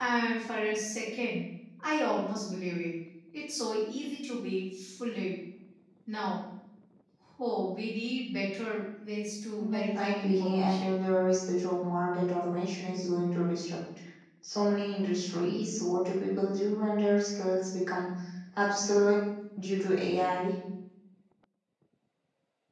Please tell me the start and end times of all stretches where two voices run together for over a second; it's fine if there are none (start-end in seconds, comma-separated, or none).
9.6-10.8